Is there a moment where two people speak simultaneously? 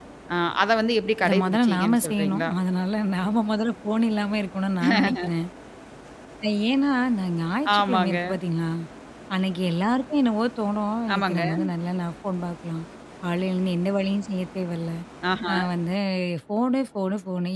Yes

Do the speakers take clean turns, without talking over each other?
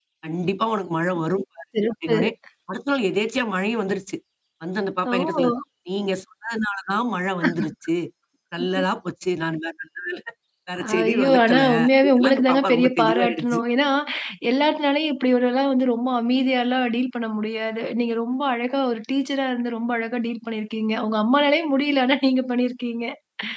No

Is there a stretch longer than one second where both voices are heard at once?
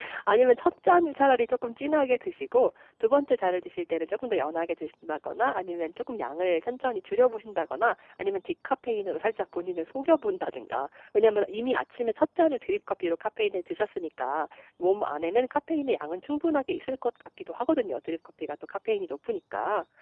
No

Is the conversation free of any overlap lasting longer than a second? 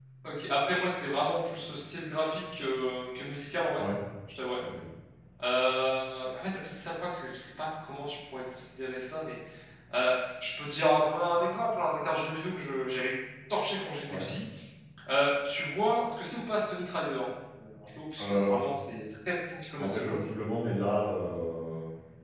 Yes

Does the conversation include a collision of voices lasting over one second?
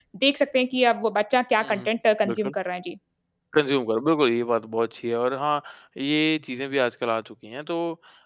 No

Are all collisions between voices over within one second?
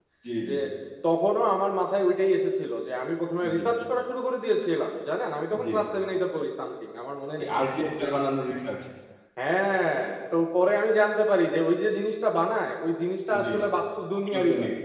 Yes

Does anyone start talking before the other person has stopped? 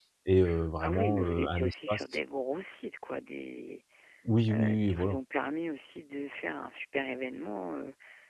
Yes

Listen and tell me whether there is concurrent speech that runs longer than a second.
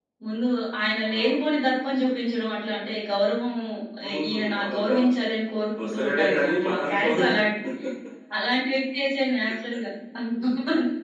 Yes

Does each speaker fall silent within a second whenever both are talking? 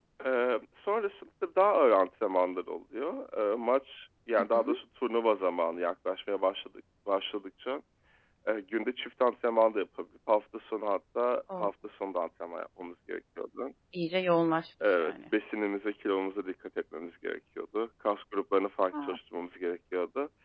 Yes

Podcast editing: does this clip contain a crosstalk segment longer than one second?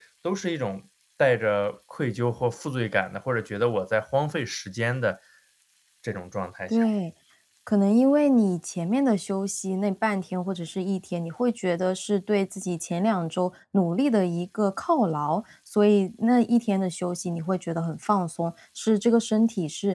No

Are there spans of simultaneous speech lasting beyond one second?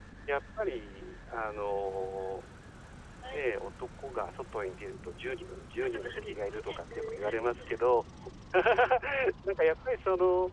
Yes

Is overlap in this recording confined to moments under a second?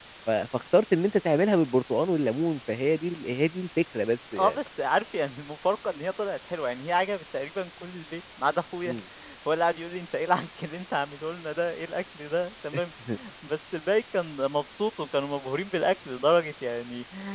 Yes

